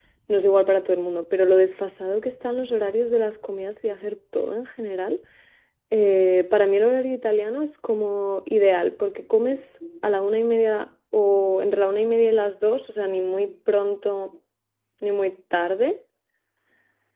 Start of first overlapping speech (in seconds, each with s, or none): none